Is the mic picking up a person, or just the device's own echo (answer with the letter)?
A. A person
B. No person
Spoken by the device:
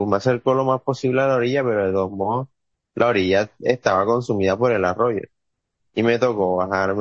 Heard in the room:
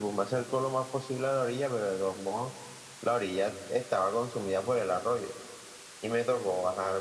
B